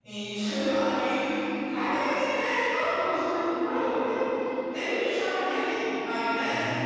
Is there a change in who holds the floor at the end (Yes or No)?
No